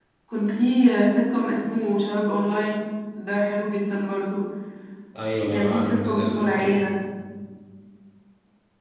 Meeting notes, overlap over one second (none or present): present